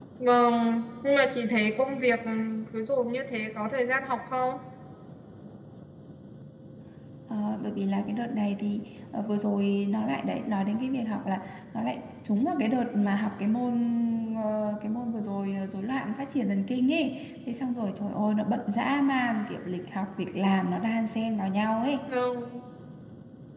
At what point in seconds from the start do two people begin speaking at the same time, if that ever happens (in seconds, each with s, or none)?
none